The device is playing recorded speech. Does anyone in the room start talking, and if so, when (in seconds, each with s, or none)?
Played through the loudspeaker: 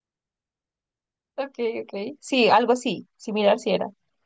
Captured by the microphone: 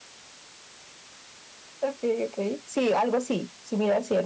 none